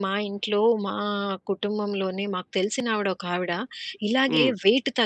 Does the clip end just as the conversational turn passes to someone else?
No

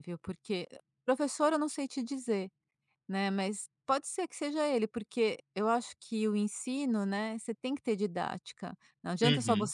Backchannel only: Yes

